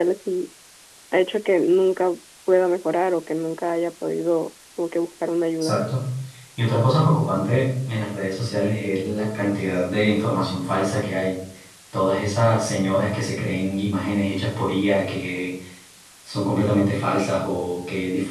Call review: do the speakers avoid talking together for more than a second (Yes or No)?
Yes